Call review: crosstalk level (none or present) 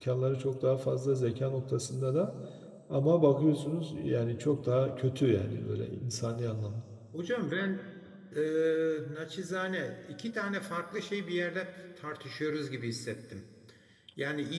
none